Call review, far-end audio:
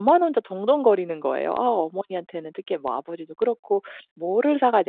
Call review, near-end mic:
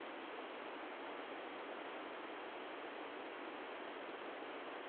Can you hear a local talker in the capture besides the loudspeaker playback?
No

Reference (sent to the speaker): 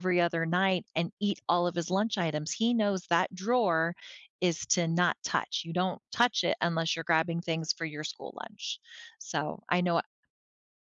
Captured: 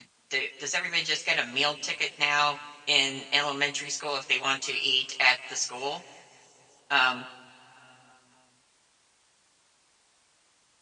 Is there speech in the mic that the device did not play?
Yes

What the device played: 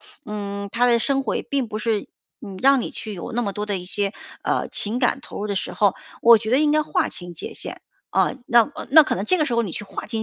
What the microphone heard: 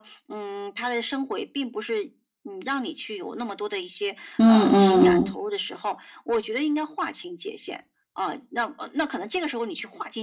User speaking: Yes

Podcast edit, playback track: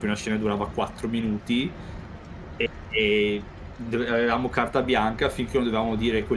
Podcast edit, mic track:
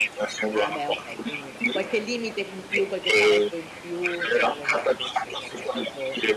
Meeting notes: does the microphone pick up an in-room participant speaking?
Yes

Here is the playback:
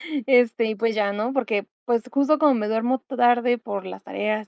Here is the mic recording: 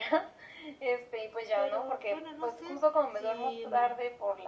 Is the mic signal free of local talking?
No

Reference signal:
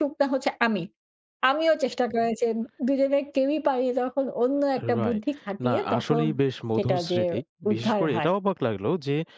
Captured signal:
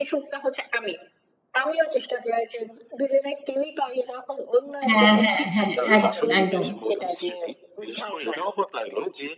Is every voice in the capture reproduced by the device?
No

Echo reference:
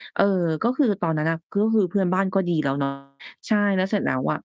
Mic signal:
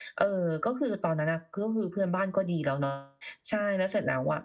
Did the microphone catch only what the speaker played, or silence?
Yes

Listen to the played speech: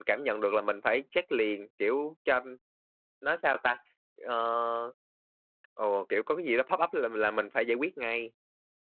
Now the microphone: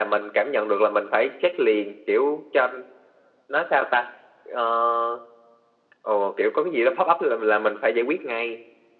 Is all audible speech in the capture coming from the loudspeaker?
Yes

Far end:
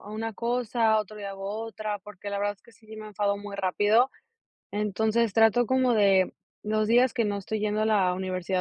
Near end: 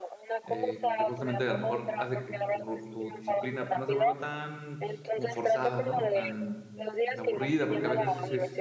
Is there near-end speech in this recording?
Yes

